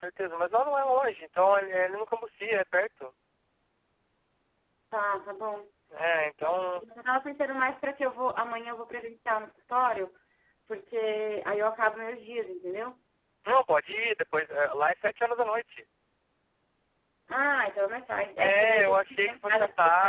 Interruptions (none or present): present